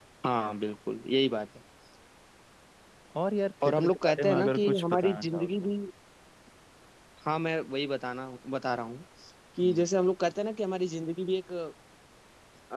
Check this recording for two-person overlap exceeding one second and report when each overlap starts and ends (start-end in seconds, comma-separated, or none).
3.6-5.7